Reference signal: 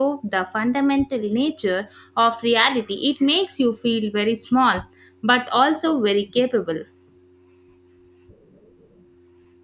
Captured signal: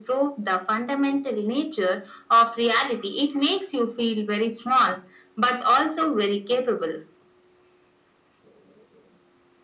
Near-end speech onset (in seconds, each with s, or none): none